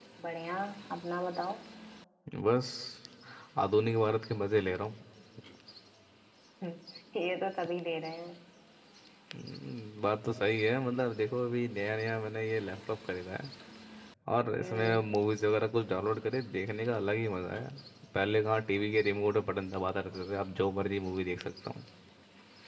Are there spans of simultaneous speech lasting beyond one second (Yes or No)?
No